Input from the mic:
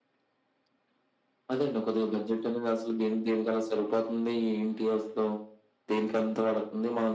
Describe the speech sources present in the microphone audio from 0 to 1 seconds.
neither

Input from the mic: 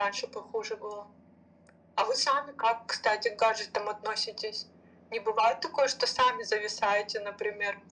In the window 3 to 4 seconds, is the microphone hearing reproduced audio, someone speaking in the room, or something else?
echo only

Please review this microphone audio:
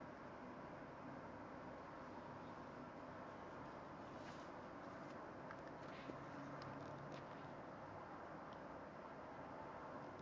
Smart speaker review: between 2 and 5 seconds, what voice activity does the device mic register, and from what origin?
neither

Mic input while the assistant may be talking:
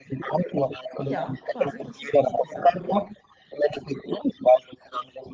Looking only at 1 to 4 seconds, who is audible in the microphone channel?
both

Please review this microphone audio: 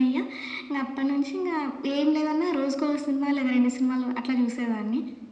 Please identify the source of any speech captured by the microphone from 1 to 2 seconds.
echo only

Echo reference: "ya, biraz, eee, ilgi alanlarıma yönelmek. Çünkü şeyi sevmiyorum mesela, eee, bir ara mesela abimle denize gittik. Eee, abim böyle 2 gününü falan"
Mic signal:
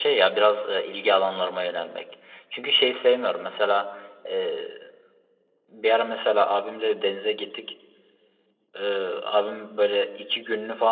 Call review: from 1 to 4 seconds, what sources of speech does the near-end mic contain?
echo only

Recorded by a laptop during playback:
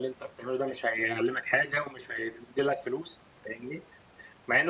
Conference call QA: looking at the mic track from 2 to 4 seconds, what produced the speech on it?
echo only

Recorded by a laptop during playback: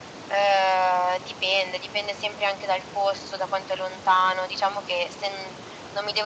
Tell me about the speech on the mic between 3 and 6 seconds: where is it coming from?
echo only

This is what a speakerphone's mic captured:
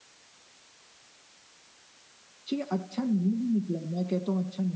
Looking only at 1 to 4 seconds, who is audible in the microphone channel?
user only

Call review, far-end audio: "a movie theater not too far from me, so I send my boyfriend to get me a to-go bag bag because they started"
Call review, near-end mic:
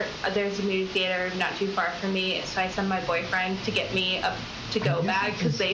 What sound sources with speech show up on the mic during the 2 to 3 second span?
echo only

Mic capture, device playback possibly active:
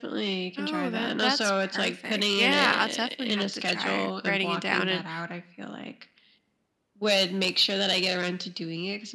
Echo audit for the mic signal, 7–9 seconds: echo only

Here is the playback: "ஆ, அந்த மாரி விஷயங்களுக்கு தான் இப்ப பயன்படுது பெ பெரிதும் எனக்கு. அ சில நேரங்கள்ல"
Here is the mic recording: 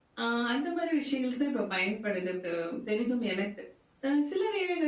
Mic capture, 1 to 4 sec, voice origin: echo only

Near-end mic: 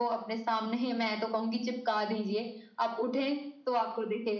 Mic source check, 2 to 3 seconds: echo only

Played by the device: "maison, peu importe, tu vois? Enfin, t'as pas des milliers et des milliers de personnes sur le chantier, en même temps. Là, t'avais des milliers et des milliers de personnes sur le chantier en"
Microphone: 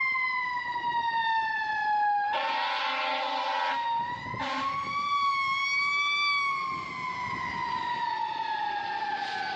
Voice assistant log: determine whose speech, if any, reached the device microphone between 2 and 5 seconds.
neither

